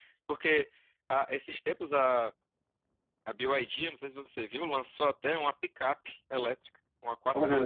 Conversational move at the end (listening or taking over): listening